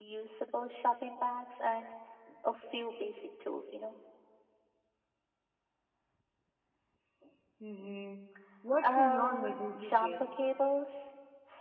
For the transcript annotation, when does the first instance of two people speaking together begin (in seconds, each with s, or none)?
8.8 s